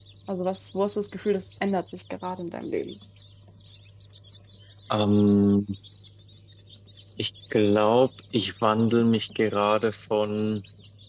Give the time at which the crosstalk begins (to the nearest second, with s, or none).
none